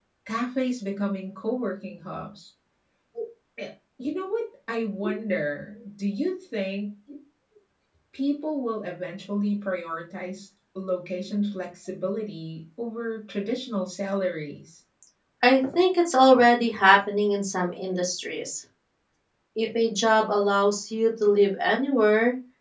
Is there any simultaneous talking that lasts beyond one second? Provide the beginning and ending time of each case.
none

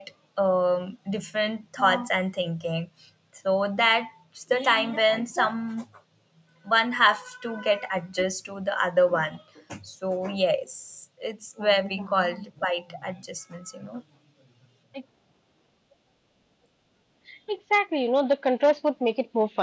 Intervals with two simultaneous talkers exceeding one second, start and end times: none

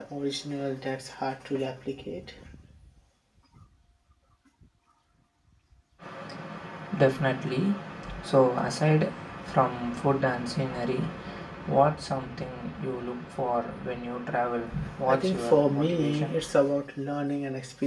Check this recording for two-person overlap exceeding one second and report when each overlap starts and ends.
15.1-16.3

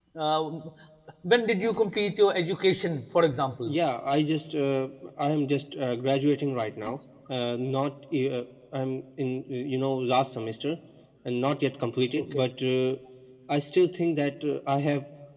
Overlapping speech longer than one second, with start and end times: none

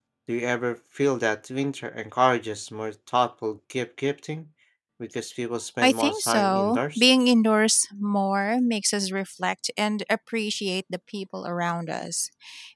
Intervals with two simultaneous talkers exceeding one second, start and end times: 5.8-7.0

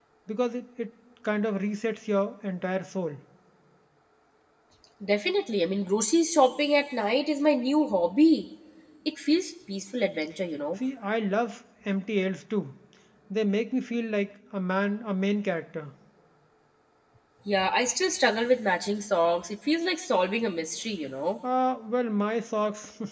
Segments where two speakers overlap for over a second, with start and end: none

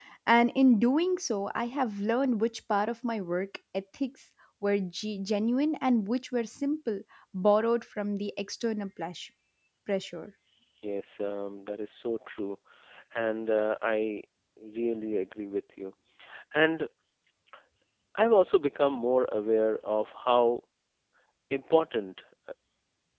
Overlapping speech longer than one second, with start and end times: none

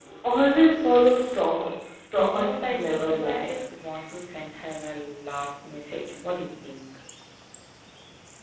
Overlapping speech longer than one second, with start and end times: 2.1-3.6

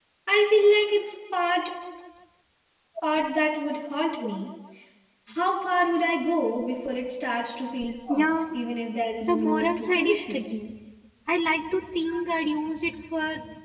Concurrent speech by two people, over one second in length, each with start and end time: 9.2-10.4

